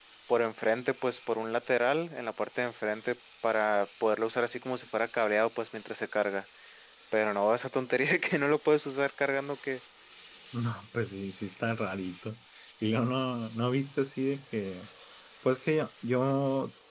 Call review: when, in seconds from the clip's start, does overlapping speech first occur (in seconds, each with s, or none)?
none